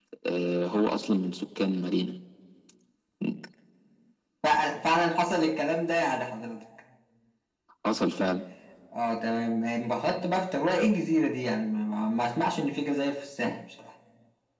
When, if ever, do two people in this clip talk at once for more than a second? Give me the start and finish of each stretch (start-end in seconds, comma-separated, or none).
none